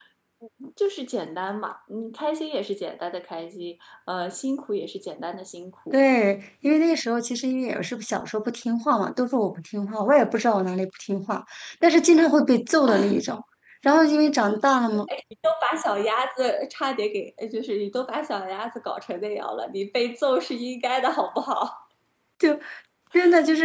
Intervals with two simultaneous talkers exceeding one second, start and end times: none

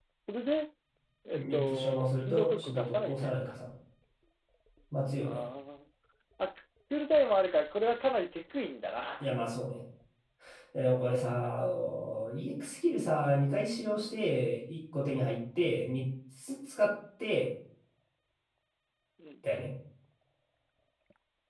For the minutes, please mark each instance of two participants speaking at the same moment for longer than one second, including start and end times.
1.3-3.4

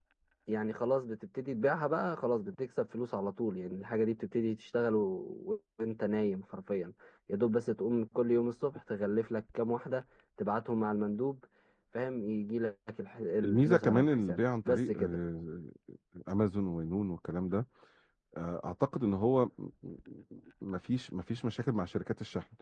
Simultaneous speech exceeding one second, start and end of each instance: 13.4-15.2

